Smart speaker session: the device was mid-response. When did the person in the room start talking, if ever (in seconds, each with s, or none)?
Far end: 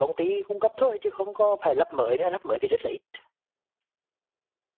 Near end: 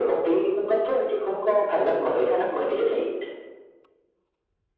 none